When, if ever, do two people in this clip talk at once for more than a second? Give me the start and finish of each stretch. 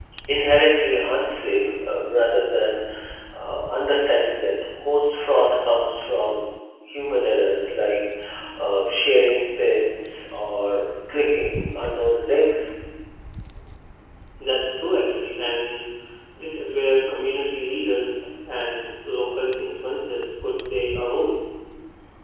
none

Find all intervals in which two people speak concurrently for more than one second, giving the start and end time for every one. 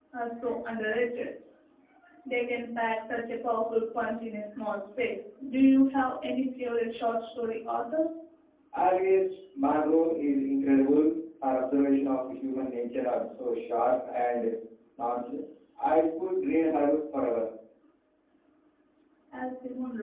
none

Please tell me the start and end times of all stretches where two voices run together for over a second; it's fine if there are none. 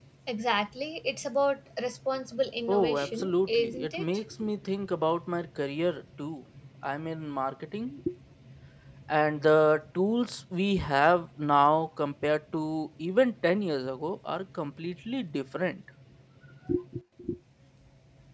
2.7-4.0

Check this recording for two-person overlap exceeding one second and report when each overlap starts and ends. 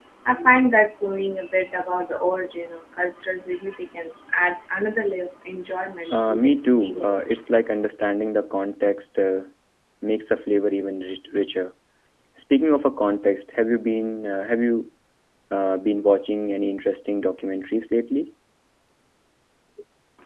6.1-7.4

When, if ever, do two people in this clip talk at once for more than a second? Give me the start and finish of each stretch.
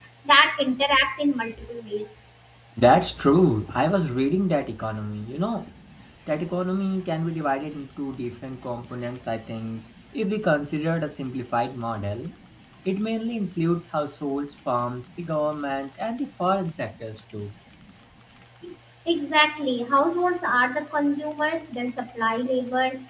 none

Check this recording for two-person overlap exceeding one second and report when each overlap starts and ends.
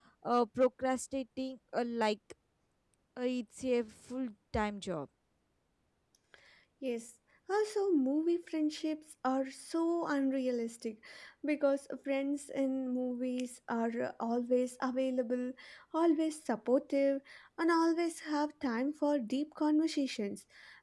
none

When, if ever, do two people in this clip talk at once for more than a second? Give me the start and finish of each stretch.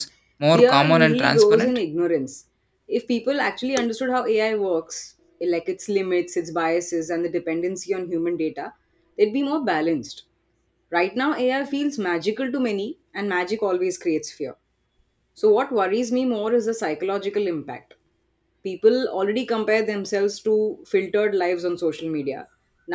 0.5-1.8

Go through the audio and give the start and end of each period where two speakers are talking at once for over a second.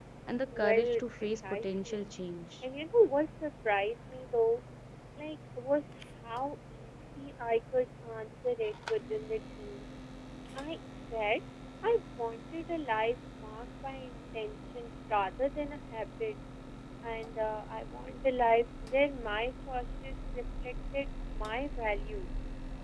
0.5-2.0

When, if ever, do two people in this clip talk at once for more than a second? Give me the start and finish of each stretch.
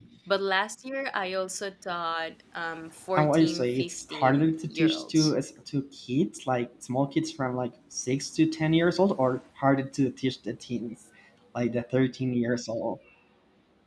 3.2-5.3

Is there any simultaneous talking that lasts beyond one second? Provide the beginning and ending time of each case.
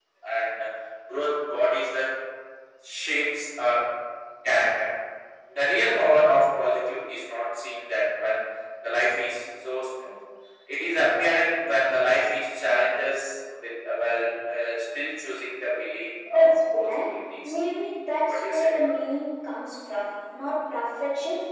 16.3-17.5

